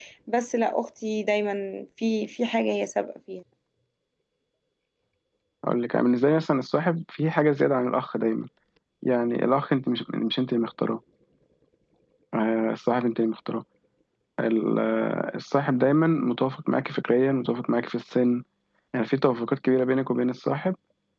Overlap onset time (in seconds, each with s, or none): none